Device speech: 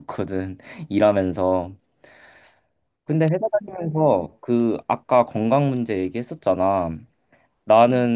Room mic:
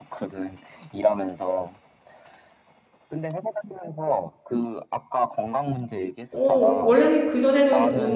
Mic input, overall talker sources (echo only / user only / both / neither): both